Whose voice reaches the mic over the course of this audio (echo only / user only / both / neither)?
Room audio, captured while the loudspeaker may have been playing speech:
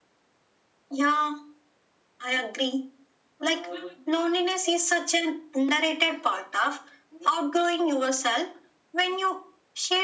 echo only